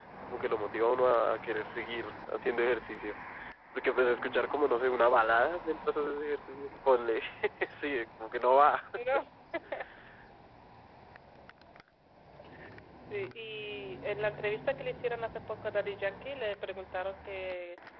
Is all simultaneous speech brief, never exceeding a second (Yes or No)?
Yes